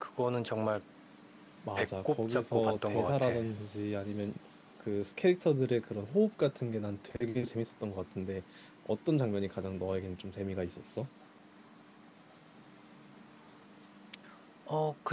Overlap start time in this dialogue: 1.8 s

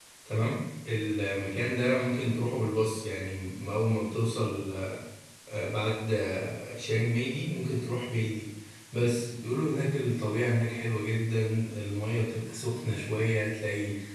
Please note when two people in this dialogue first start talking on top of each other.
none

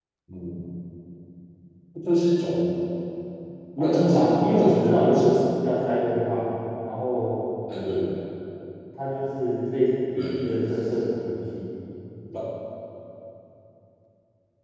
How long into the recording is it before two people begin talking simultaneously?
3.8 s

